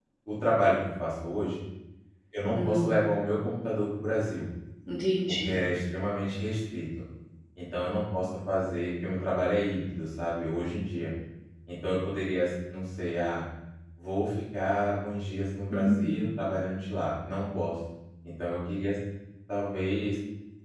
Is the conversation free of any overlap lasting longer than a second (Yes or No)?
Yes